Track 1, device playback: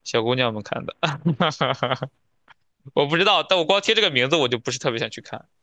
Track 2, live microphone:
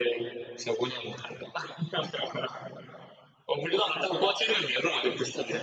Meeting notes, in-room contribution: none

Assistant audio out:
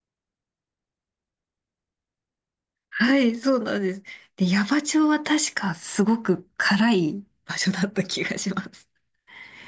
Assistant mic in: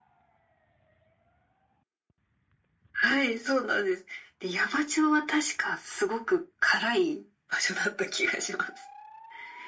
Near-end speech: none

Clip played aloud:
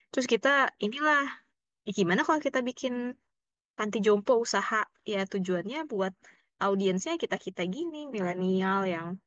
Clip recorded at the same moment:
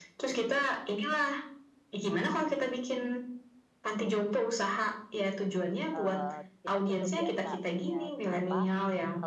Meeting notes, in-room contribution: present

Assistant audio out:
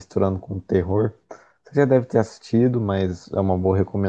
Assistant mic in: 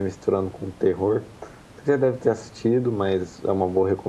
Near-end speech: none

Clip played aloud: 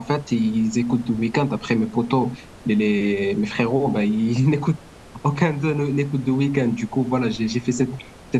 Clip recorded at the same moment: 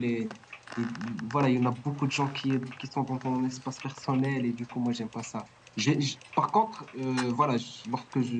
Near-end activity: present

